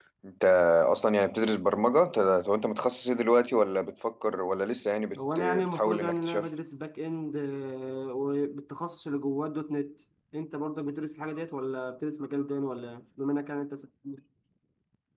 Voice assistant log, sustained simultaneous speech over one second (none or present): present